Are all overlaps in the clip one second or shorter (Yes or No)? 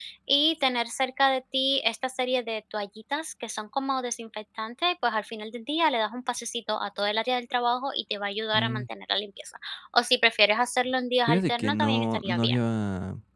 No